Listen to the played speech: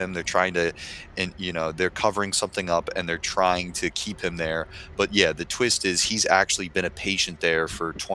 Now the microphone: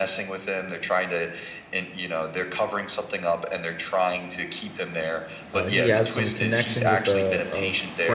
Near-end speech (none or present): present